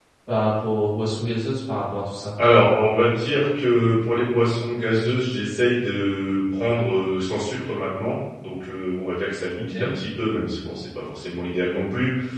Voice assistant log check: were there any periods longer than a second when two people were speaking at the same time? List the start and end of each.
none

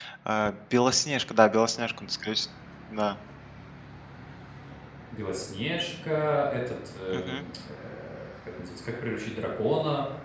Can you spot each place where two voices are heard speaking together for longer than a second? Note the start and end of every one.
none

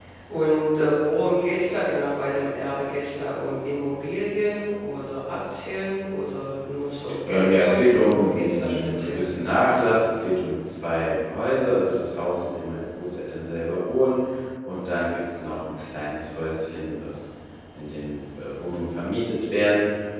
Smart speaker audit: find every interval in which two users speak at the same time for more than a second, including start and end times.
7.3-9.3

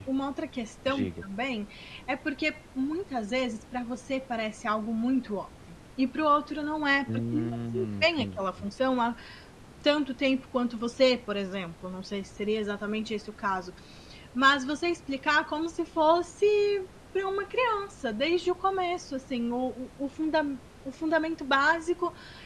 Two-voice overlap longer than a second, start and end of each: 7.1-8.4

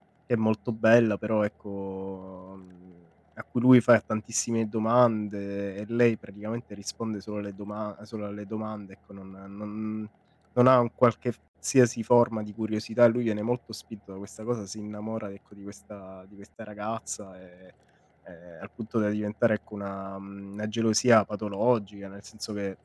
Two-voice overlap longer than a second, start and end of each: none

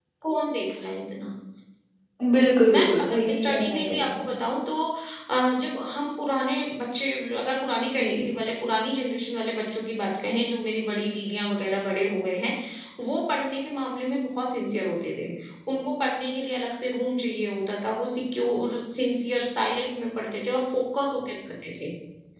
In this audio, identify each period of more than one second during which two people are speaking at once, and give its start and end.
2.7-4.3

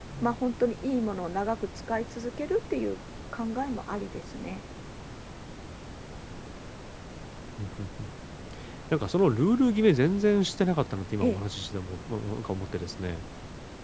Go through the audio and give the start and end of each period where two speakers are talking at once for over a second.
none

